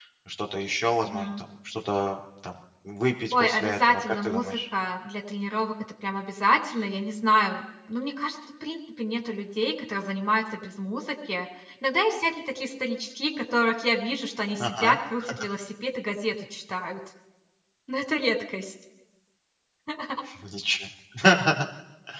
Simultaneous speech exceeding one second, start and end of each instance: 3.3-4.6

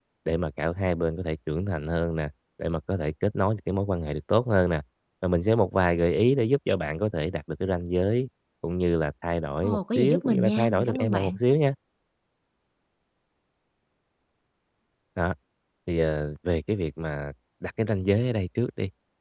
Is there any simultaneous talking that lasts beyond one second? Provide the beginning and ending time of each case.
9.6-11.4

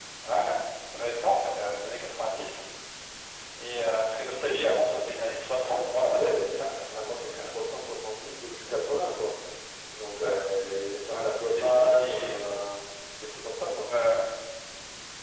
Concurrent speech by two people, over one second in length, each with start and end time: 5.7-7.4, 11.1-12.6

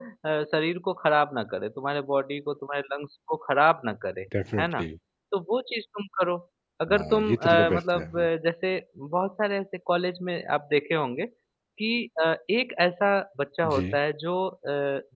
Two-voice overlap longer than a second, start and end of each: 7.0-8.3

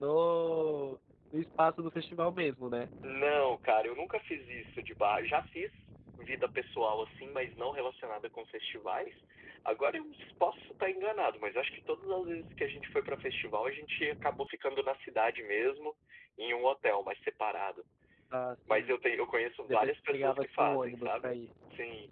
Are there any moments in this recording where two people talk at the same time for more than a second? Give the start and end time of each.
19.7-21.3

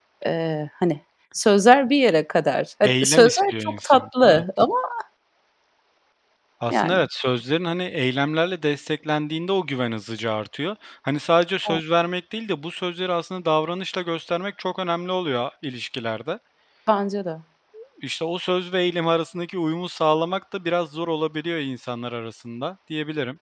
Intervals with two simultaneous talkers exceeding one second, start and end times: 2.8-4.4

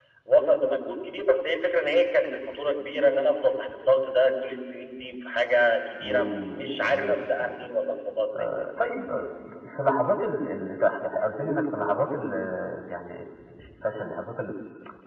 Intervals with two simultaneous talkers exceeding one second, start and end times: 6.0-7.5

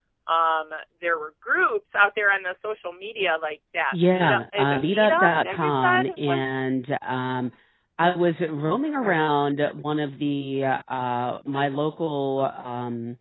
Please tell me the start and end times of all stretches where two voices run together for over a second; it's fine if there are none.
3.9-6.4

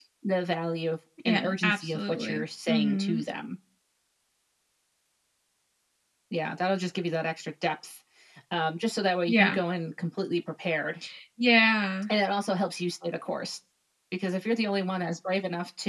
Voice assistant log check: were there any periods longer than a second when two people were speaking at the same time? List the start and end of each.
1.2-3.2

